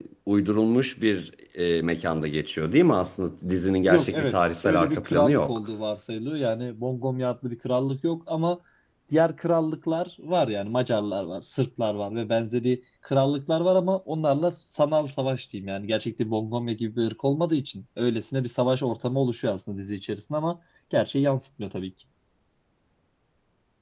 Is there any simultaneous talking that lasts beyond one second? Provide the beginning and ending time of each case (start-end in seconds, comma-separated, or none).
3.8-5.6